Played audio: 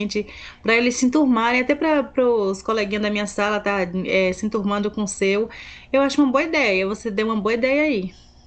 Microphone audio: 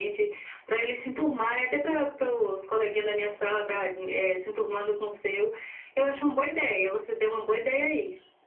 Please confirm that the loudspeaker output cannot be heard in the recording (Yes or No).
No